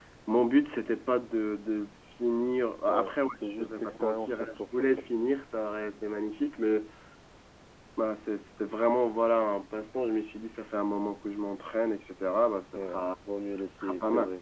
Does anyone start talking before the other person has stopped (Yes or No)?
Yes